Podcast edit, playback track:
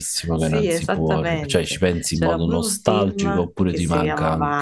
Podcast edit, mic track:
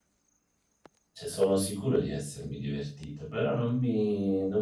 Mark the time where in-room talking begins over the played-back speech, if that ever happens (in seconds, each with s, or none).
1.1 s